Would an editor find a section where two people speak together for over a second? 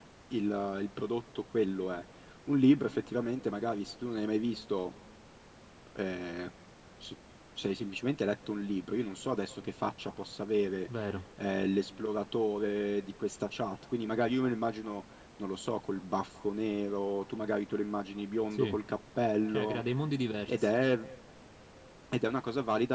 No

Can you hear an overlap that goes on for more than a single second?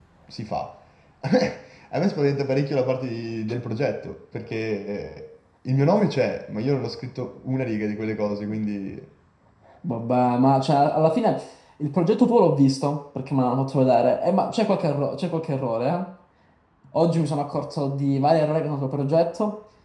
No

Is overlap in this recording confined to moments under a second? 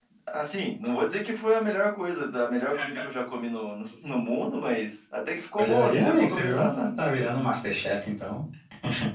No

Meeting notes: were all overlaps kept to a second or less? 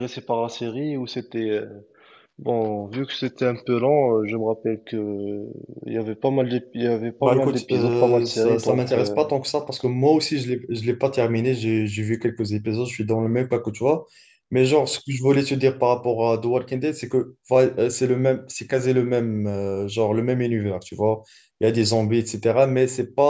No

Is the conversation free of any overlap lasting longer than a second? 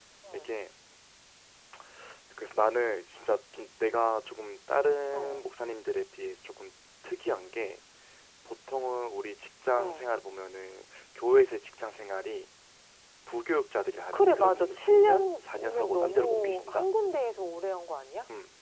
No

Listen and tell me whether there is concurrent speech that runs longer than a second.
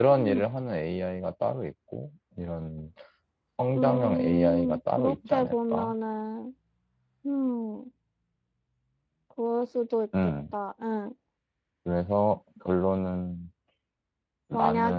Yes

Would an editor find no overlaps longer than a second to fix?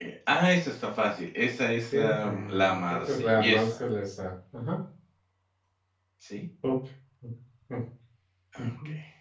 No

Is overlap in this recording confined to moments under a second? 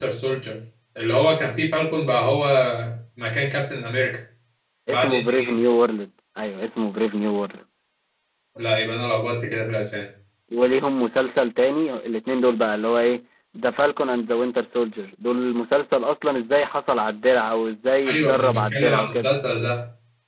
No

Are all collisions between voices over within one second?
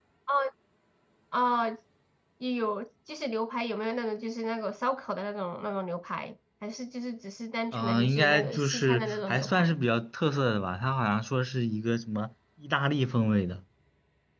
No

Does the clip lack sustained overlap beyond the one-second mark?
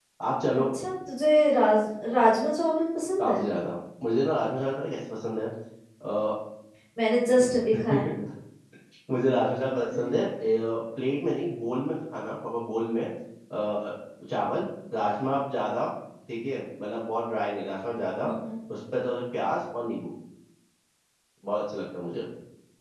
Yes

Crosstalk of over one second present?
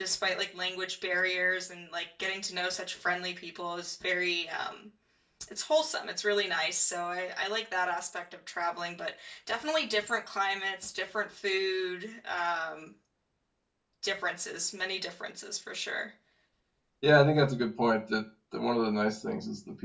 No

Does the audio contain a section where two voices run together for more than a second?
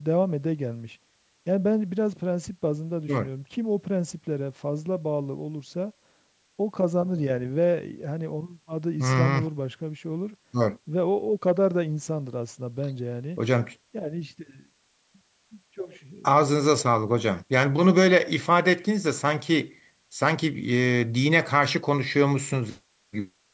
No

